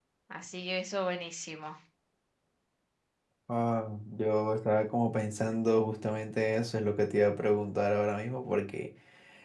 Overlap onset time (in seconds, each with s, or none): none